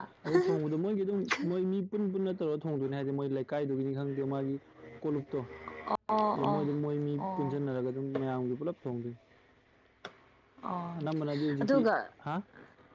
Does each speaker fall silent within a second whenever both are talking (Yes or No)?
Yes